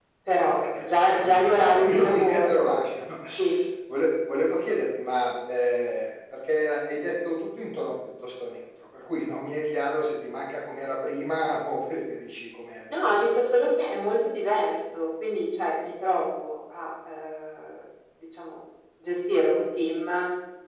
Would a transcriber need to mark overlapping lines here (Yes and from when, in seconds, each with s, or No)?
Yes, from 0.8 s